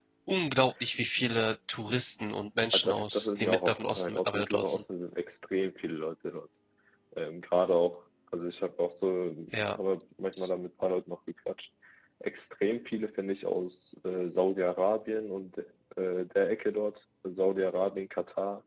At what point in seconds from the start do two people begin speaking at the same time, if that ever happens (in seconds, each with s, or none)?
2.7 s